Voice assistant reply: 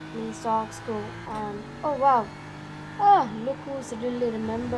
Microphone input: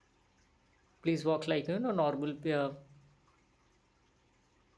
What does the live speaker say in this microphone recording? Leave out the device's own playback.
Please walk like, you know, normal uh,

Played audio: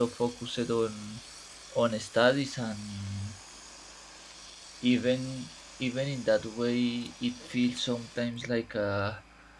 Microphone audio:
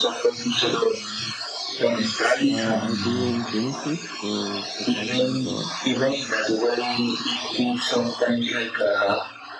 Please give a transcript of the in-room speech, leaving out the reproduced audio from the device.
uh, I do an internship, so it's a part-time job,

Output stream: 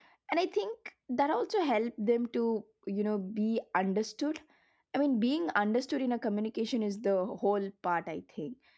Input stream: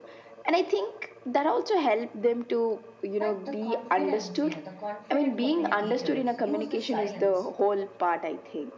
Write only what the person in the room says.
but the confidence, you know, the confident communicators use the silence

